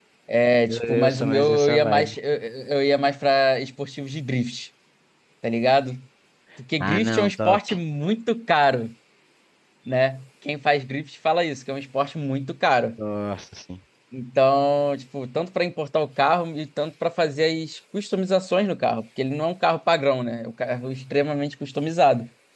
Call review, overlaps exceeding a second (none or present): present